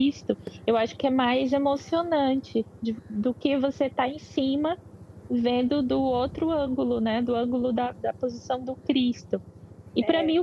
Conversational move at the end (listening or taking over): listening